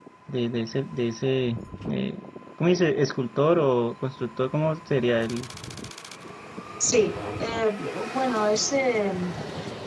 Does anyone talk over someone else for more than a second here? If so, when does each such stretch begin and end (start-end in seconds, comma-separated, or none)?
none